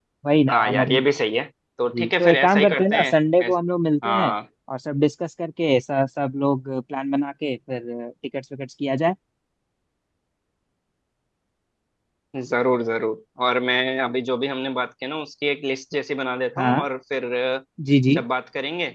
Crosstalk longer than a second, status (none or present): present